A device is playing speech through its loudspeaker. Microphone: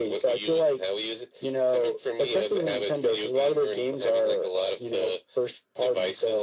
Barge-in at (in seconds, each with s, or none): none